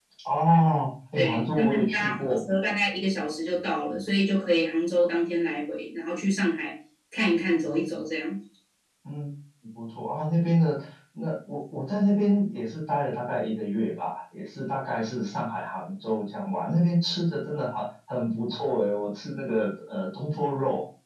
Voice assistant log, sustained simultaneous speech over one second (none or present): present